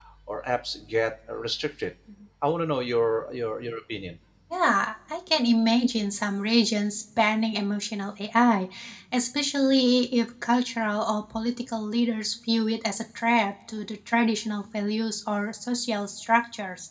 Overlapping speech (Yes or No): No